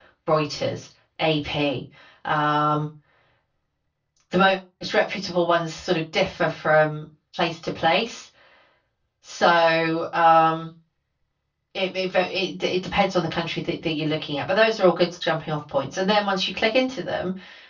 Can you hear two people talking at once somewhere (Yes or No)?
No